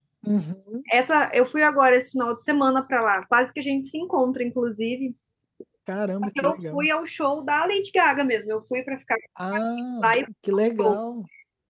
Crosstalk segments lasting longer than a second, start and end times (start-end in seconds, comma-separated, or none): none